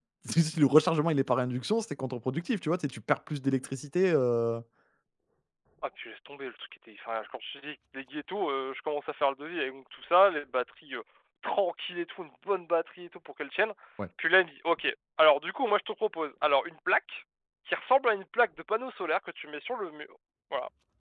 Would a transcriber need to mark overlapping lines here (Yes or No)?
No